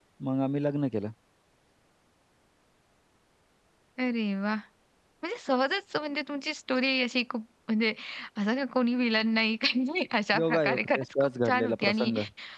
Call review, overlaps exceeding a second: present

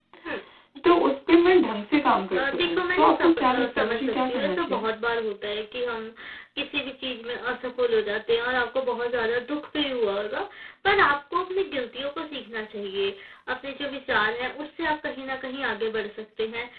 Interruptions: present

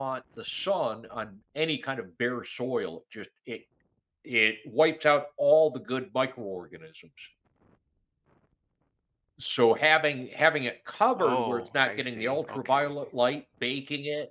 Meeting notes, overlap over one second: present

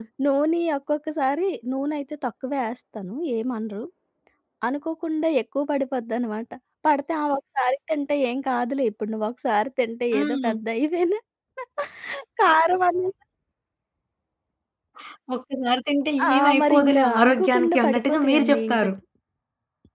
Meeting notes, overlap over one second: present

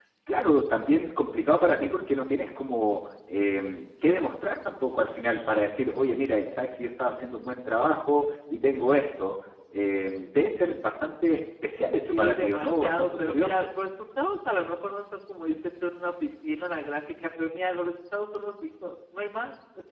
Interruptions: present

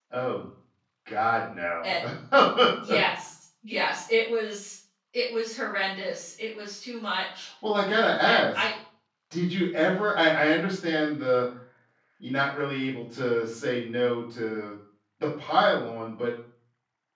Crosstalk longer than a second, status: none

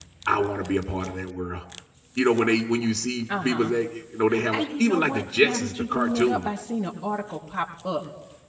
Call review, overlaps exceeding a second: present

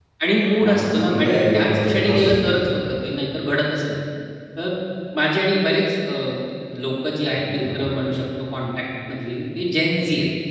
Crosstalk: present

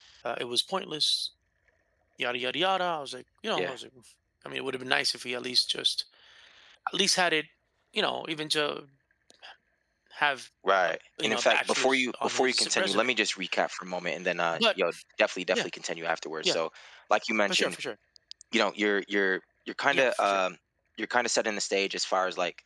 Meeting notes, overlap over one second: present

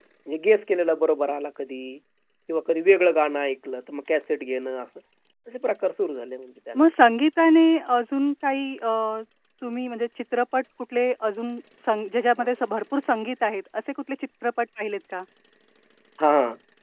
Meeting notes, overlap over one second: none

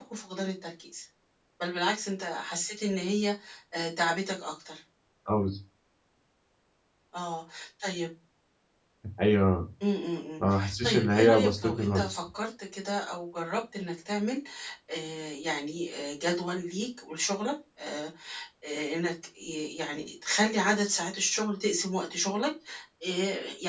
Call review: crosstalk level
present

